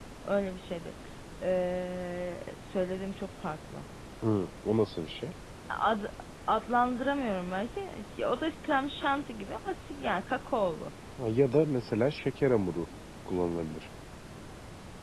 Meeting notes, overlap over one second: none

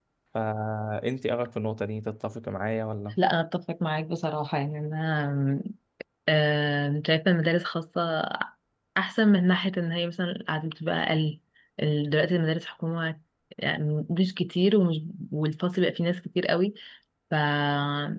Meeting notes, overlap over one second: none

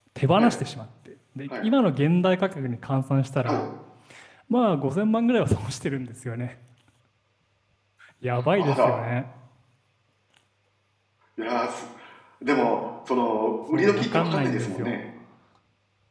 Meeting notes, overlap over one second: present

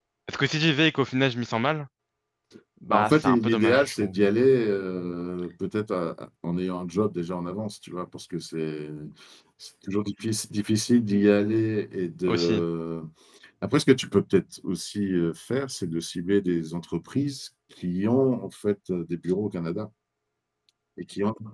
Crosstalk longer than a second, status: present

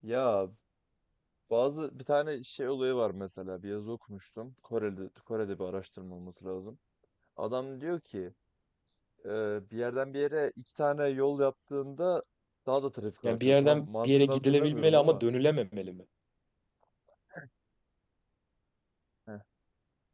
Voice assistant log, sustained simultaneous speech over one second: present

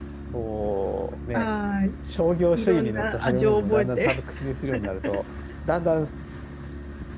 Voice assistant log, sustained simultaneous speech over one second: present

